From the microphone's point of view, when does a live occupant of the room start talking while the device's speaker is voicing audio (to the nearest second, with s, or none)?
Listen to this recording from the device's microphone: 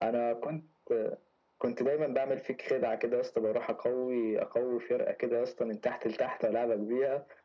none